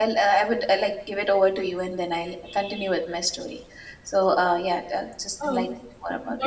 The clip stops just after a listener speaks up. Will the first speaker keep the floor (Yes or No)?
No